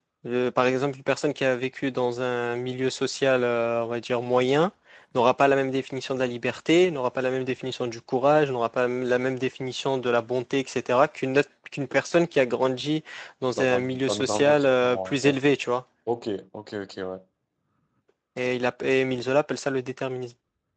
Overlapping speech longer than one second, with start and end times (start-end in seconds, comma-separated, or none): 13.5-15.3